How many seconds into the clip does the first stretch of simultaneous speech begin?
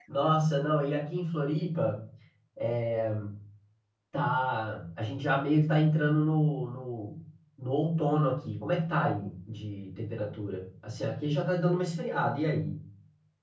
none

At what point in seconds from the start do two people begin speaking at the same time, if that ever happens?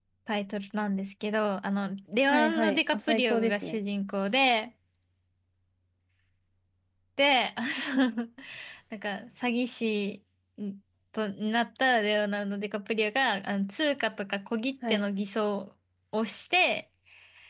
2.3 s

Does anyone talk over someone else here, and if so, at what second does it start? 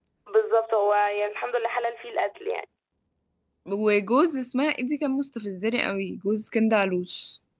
none

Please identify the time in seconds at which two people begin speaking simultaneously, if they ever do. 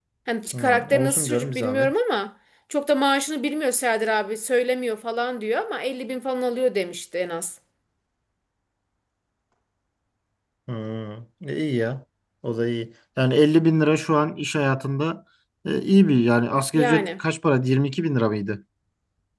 0.5 s

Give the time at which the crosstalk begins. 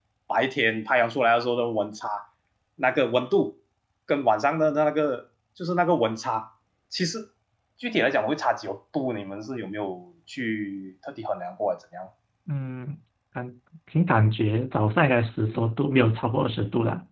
none

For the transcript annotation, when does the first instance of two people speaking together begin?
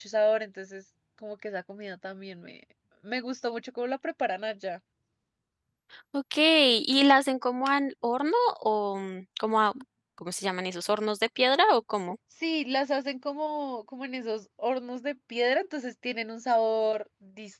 none

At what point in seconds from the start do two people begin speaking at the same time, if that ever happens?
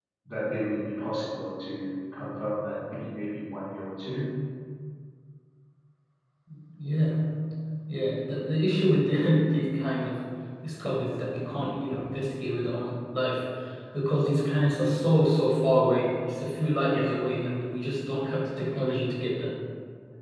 none

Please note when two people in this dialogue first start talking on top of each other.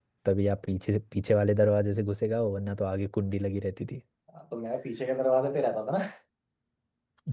none

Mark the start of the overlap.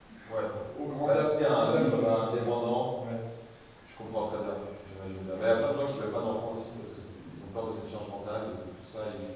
1.0 s

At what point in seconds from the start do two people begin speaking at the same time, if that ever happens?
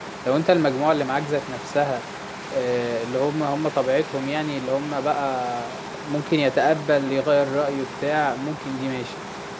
none

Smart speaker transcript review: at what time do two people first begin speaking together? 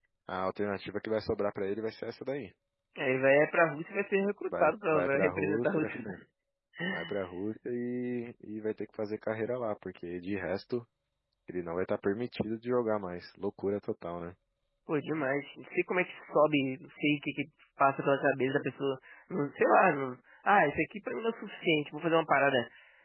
4.5 s

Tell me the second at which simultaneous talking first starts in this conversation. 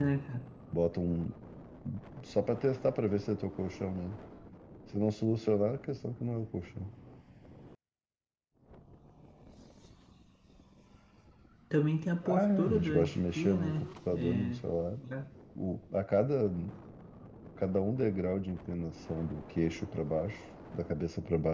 12.2 s

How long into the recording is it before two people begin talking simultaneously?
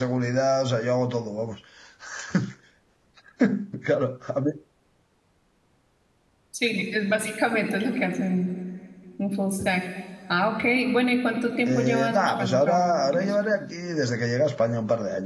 11.7 s

